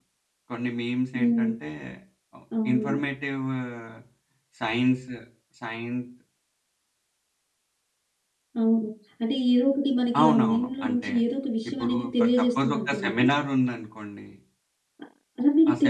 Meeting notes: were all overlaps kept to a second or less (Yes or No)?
No